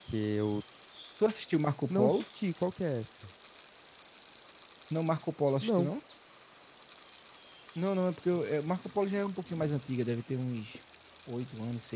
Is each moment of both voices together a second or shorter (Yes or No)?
Yes